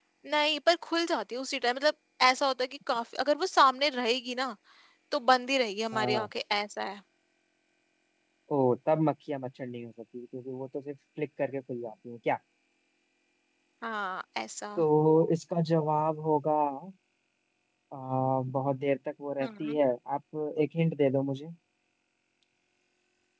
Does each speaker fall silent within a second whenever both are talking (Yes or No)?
Yes